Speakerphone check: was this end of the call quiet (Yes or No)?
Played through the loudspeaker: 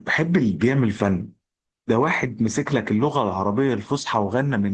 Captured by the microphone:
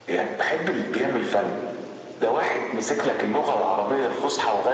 Yes